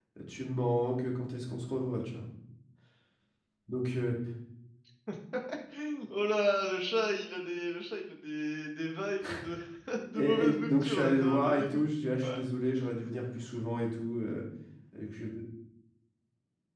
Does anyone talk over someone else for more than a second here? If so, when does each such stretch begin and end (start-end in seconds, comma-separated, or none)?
10.1-11.9